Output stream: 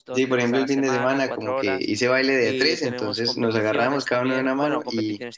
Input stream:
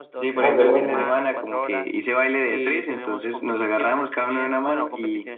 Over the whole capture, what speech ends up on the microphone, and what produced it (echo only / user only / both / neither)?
both